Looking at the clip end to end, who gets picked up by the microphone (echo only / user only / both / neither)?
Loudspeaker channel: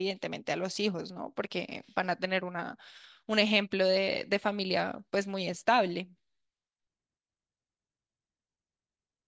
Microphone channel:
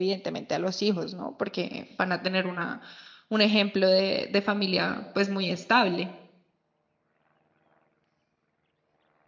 echo only